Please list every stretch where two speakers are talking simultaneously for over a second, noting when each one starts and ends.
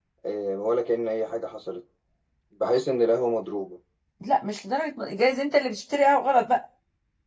none

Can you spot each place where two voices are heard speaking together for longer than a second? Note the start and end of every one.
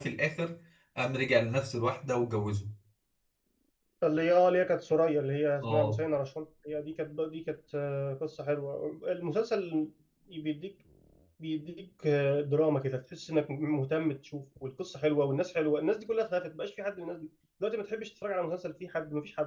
none

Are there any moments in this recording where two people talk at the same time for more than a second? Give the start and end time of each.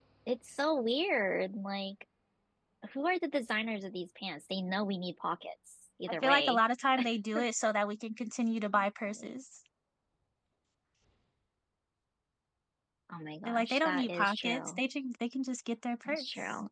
13.4-14.8

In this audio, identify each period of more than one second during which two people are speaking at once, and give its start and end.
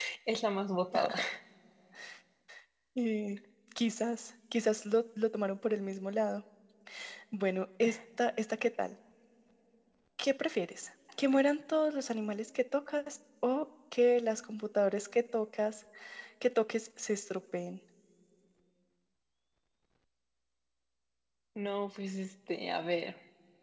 none

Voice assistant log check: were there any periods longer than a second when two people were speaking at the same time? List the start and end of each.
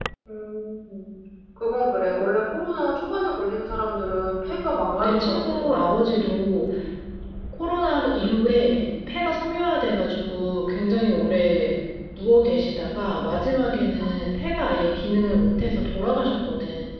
5.0-6.2

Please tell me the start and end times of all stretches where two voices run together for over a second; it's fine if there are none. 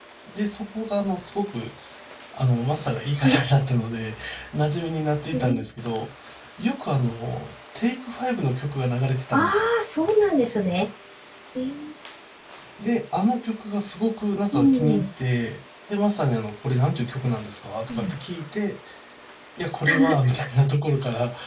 none

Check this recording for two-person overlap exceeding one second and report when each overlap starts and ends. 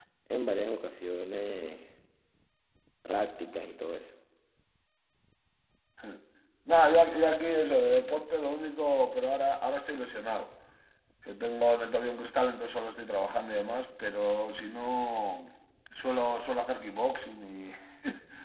none

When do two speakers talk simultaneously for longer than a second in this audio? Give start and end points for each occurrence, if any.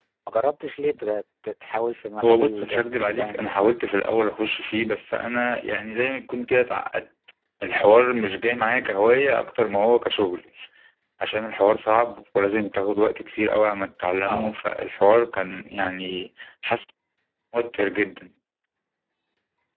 2.2-3.8

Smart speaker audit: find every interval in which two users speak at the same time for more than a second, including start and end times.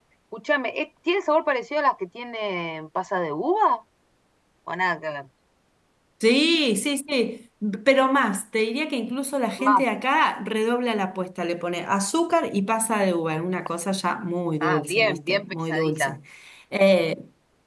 14.6-16.2

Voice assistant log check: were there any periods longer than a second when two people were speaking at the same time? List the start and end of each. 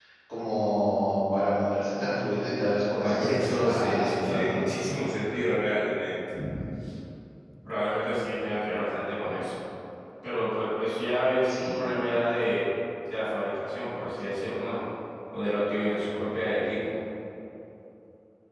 3.0-4.6

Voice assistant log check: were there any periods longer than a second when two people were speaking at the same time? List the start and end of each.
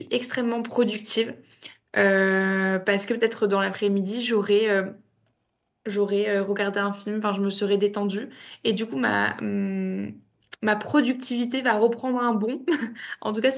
none

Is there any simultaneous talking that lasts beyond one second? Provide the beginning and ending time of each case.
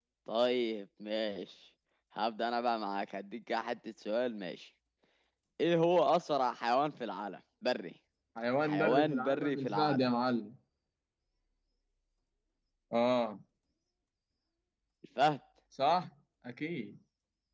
8.7-10.1

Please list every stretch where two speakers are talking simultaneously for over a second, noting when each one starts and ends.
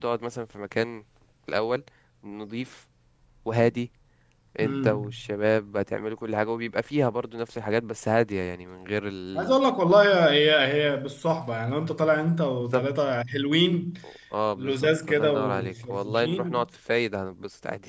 14.6-16.6

